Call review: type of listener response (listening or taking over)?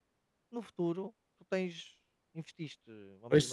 listening